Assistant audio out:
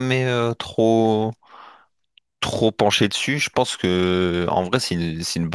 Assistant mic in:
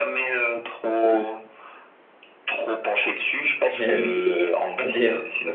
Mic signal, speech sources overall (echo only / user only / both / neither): both